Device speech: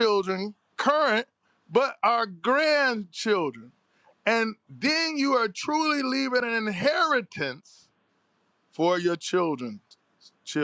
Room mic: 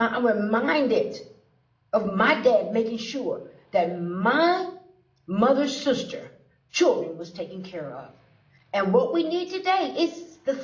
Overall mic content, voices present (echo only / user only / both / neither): user only